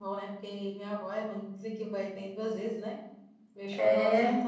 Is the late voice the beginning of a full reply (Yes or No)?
No